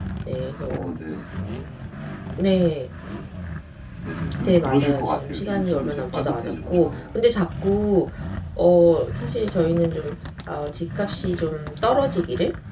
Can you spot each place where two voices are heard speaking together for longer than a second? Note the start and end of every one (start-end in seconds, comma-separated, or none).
4.4-7.0